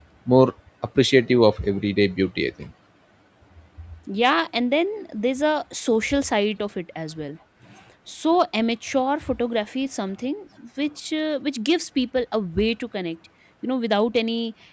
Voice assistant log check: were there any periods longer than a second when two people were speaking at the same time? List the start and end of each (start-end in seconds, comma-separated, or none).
none